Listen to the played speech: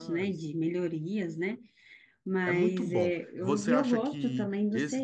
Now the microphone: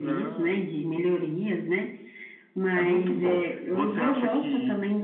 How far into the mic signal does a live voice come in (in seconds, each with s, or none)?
none